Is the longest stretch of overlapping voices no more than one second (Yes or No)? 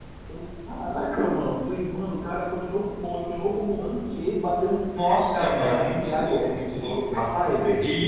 No